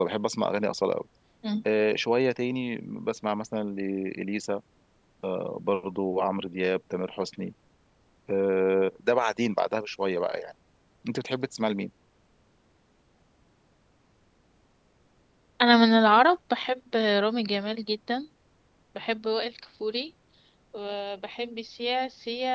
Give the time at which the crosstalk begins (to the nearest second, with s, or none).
none